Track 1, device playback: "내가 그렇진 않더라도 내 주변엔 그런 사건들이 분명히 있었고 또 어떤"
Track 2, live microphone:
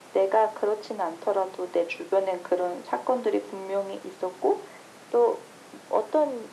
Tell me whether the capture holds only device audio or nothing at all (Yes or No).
Yes